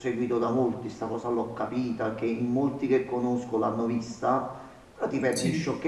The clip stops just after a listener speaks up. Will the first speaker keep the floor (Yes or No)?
Yes